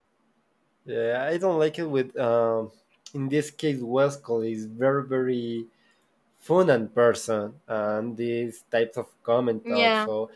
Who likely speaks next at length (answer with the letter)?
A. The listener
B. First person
B